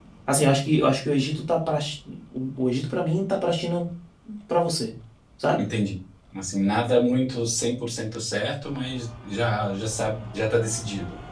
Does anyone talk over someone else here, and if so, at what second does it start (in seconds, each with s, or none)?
none